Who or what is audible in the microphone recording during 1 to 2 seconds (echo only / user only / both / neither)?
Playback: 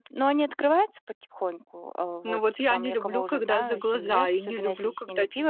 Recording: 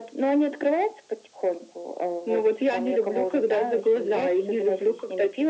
echo only